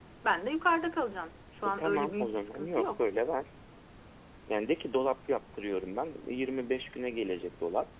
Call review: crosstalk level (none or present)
present